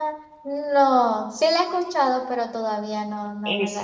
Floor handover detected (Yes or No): Yes